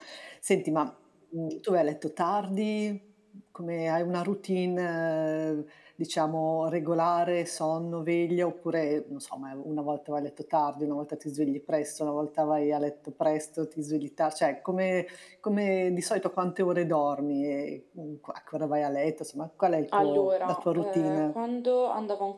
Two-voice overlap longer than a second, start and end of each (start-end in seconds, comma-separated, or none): 20.0-21.3